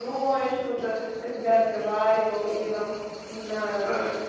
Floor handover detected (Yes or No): No